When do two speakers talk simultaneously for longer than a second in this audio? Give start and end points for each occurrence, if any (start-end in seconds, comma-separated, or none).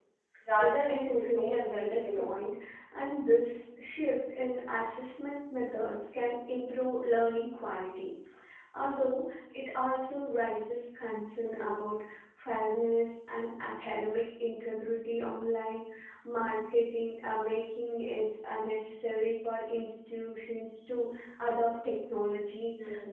0.6-2.4